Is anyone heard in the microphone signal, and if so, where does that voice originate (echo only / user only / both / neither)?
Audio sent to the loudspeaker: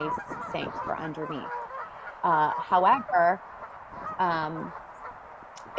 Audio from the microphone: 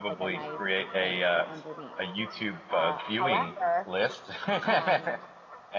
both